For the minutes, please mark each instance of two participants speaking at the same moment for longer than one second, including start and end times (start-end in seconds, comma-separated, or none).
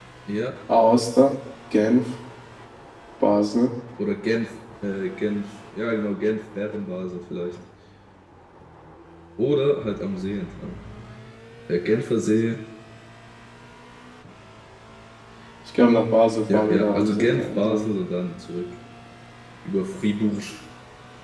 16.5-17.9